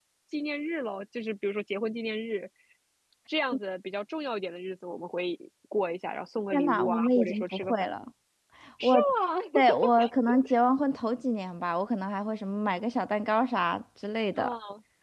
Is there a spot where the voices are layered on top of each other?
Yes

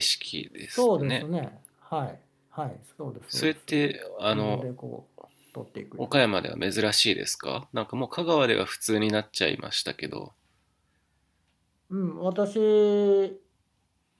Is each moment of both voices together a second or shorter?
Yes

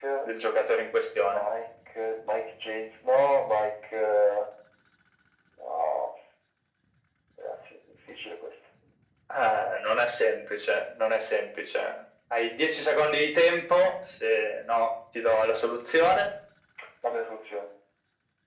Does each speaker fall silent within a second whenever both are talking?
Yes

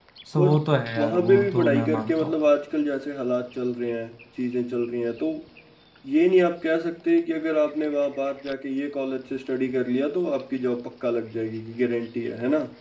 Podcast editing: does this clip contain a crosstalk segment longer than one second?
Yes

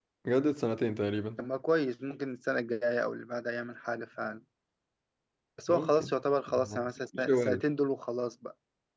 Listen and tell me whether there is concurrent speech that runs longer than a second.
No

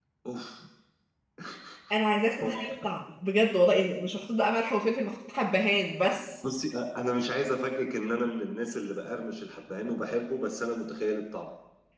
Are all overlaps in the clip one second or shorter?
Yes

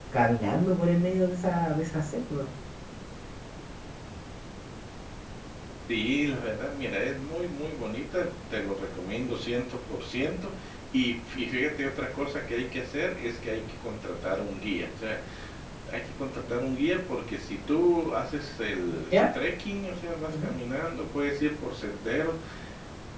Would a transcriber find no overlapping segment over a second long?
Yes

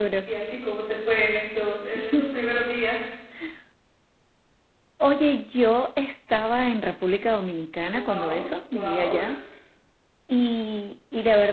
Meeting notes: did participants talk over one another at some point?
Yes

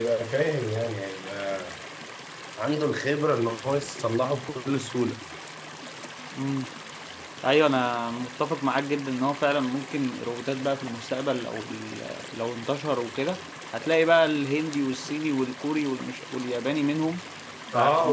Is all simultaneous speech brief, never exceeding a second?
Yes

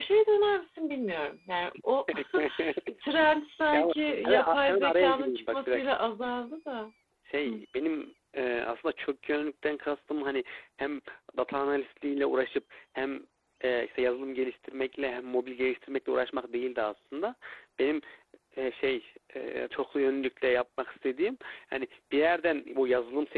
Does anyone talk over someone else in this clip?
Yes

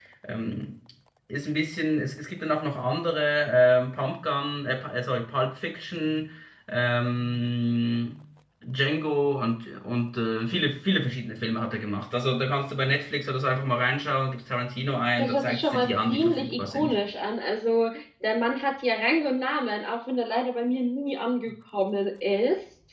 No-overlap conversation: No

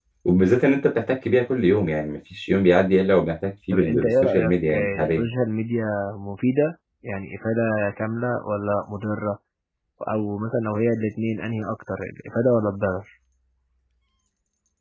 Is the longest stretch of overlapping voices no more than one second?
No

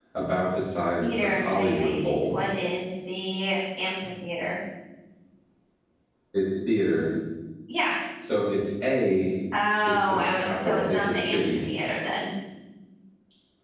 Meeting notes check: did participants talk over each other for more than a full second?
Yes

